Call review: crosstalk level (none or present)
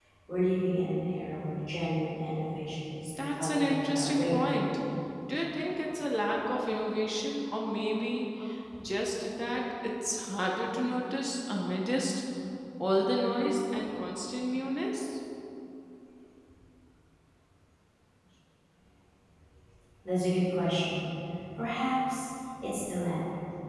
present